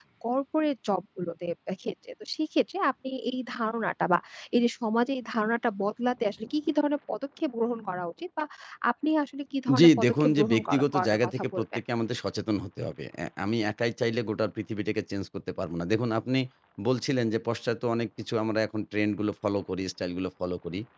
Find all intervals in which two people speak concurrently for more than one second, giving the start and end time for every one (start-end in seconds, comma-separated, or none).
9.8-11.6